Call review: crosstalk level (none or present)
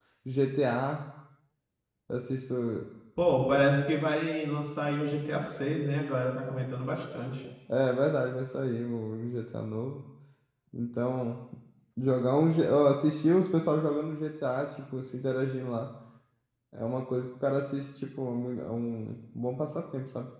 none